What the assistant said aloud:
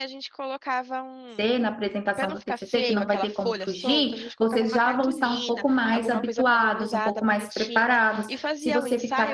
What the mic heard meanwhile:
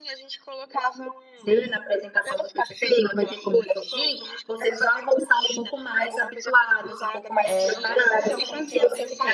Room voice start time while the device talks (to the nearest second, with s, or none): 7 s